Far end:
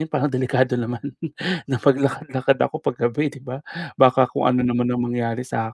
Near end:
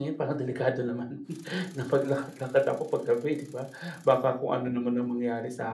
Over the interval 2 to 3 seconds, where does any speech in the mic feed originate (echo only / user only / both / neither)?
echo only